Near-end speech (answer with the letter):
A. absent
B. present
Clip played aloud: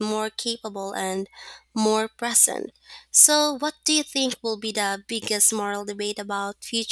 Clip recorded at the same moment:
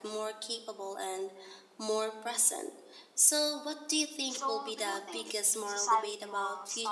B